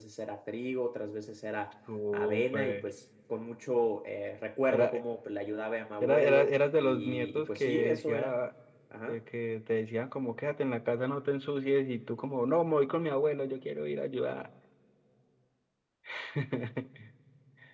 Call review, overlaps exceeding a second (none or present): present